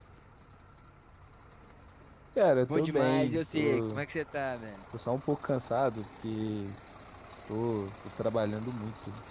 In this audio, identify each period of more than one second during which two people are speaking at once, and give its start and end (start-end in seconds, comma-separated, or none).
2.6-4.0